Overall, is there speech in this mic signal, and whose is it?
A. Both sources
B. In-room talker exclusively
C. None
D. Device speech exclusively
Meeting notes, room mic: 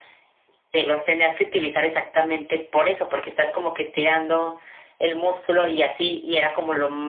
D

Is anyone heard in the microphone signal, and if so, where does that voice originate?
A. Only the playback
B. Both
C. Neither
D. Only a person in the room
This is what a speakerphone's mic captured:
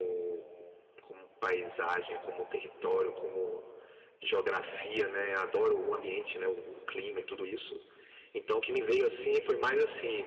A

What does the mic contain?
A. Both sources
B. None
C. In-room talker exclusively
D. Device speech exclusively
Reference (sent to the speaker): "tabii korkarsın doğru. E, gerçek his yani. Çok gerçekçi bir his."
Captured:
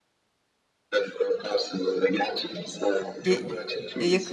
A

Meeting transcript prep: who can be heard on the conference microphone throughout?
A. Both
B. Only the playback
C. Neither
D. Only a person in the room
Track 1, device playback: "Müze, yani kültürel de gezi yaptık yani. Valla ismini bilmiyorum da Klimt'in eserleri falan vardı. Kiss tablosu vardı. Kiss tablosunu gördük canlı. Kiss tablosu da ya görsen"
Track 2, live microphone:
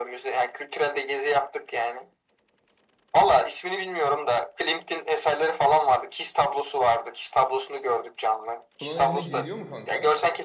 A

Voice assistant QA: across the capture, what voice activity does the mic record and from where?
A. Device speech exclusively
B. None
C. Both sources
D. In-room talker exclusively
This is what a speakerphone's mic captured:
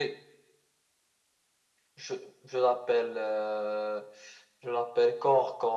A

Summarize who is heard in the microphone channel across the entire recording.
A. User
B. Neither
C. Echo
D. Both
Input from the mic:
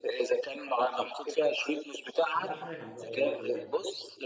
D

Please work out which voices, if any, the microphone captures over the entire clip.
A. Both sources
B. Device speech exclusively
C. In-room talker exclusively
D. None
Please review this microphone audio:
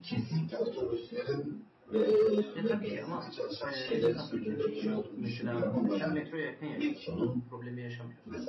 A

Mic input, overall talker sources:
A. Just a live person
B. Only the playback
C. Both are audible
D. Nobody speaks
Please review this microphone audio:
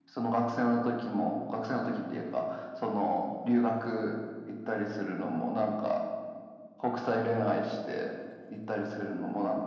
B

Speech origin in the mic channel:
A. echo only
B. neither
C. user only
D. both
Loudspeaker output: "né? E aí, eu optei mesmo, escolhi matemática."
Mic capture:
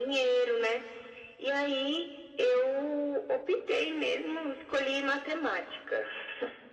A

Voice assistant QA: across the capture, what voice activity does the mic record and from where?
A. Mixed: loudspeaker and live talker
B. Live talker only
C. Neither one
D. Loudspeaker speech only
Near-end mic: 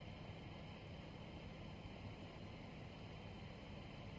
C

